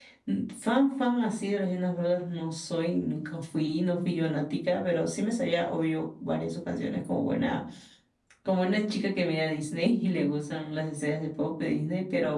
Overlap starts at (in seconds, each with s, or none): none